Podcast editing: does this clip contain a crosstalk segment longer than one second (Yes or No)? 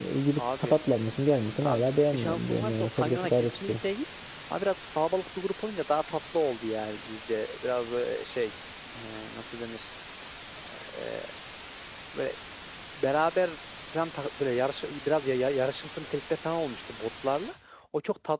Yes